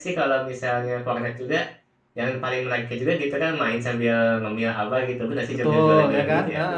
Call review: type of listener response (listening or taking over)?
taking over